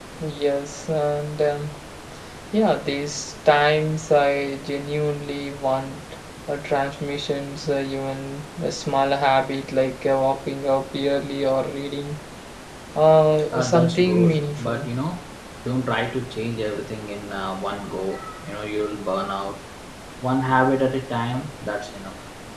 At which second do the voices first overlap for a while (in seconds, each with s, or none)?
13.5 s